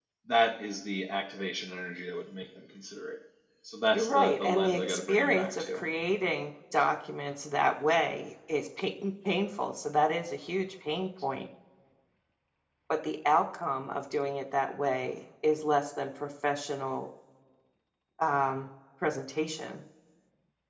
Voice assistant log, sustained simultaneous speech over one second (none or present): present